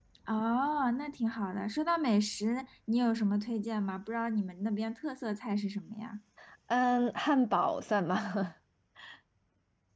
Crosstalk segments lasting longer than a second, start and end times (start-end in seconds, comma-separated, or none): none